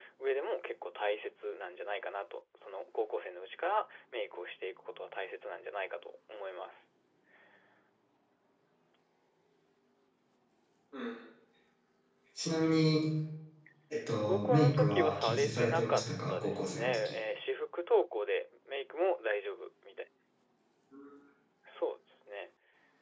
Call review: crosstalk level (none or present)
present